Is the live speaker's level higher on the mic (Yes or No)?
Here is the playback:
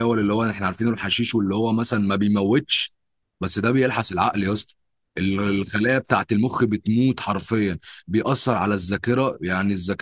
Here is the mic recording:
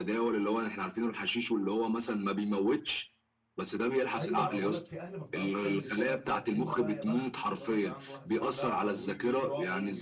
No